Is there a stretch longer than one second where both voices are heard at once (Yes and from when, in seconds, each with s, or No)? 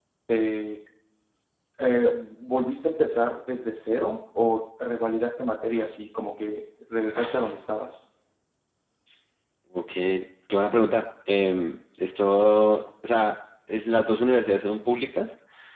No